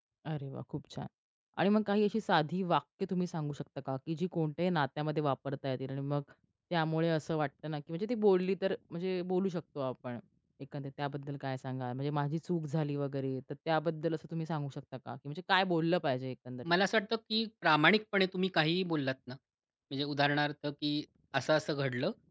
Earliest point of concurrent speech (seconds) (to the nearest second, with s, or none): none